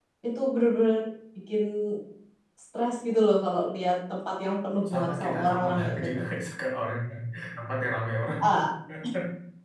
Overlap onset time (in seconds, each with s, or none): 4.9 s